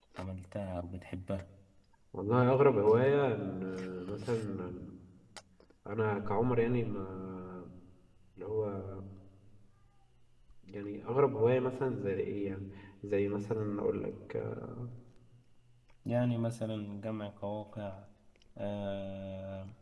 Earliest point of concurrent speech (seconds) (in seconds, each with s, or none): none